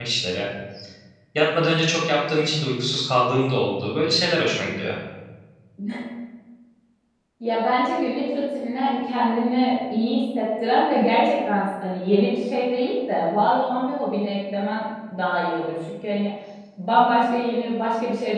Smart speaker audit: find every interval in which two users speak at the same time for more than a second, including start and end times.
none

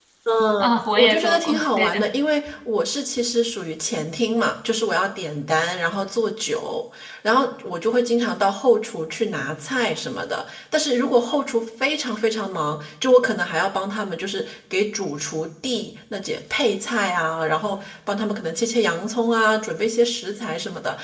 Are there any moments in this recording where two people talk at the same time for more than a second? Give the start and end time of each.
0.6-2.1

